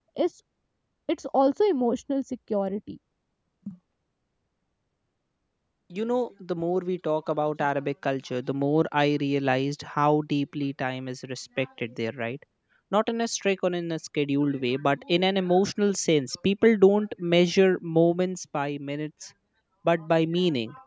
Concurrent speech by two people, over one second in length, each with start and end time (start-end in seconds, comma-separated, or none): none